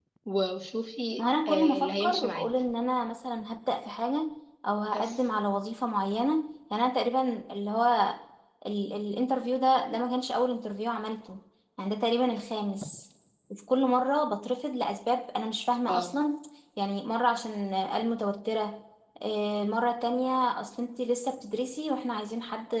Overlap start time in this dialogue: 1.2 s

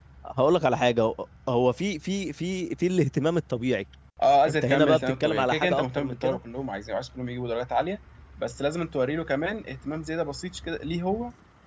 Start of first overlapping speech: 4.5 s

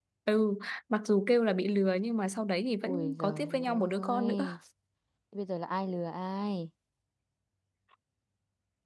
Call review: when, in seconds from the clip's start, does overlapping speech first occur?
2.8 s

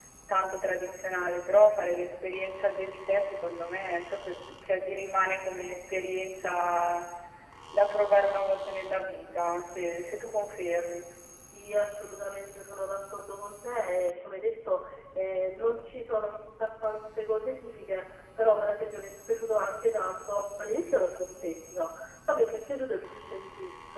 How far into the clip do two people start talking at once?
none

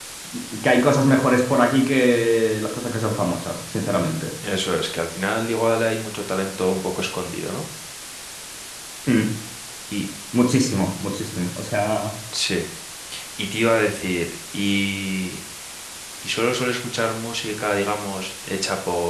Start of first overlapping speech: none

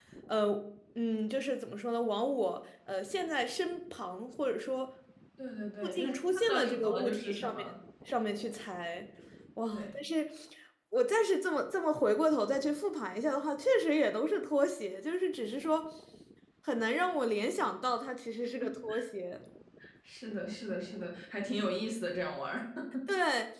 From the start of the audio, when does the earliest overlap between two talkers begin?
5.8 s

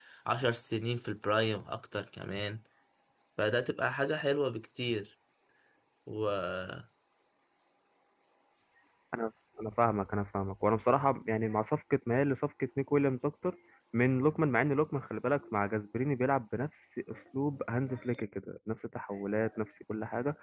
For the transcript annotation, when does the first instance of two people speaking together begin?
none

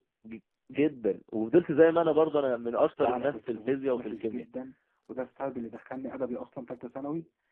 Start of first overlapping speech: 3.0 s

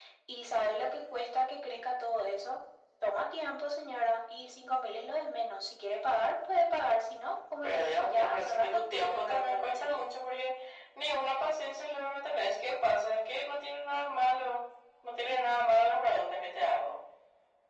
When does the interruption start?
7.6 s

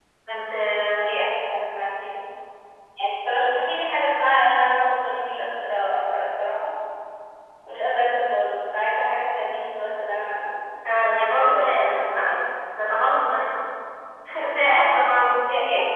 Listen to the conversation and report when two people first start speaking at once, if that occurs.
11.0 s

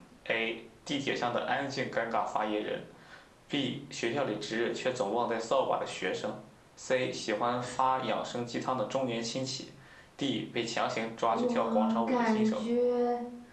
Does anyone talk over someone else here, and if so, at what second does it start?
11.3 s

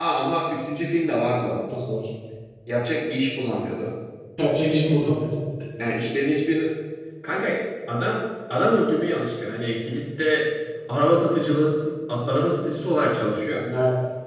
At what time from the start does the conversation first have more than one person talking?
none

